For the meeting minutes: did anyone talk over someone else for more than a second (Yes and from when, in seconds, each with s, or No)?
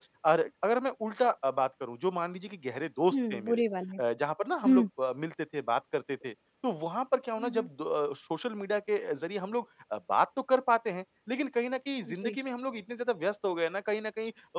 No